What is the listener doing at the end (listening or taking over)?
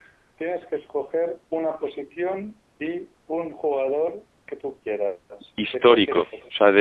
taking over